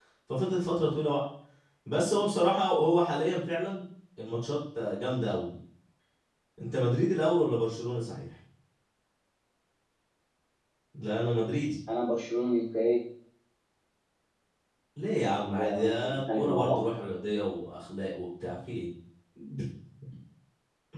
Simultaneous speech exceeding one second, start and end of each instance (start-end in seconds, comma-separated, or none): 15.3-16.8